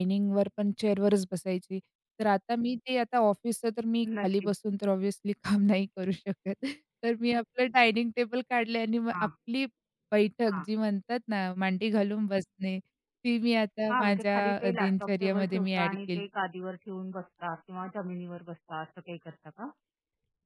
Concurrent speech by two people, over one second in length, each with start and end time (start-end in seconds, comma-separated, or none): 13.9-16.2